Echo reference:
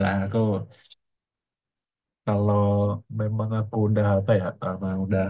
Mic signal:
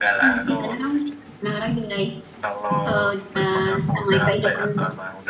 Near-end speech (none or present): present